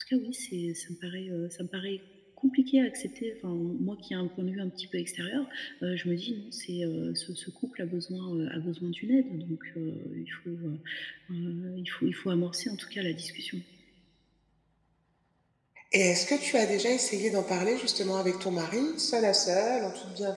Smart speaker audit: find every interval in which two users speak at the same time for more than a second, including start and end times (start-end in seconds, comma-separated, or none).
none